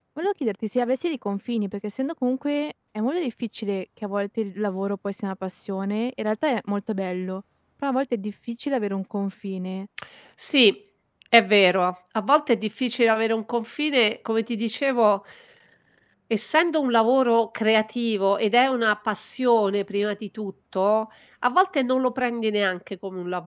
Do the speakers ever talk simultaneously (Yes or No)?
No